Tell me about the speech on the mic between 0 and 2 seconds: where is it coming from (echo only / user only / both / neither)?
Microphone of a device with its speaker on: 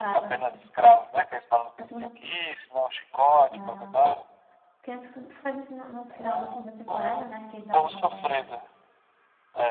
both